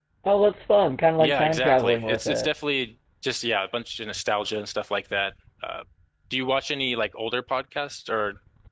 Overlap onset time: 1.2 s

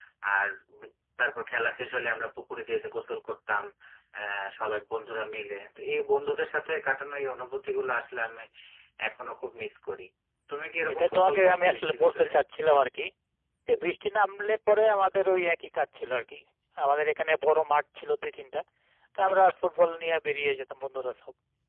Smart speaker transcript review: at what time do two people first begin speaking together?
10.9 s

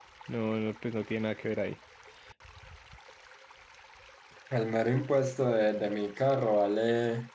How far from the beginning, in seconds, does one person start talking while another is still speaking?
none

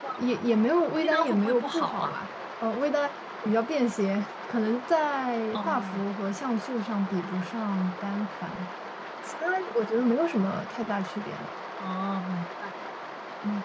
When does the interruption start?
0.9 s

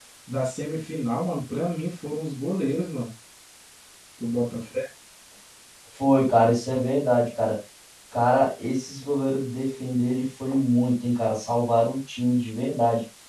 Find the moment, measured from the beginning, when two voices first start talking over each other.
none

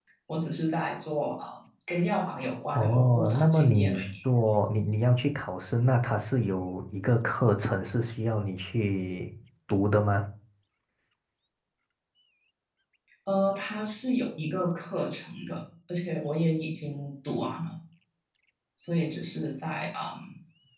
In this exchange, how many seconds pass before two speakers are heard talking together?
2.7 s

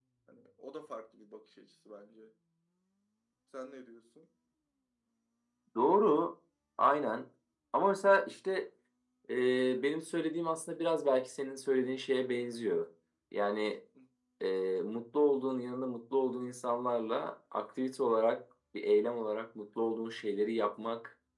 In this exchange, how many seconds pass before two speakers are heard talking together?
none

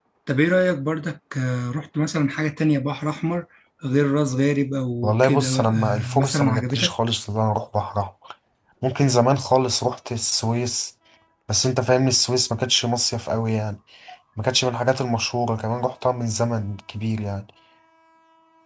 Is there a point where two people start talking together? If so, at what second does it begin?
5.0 s

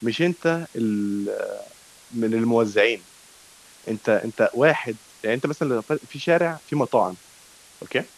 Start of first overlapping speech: none

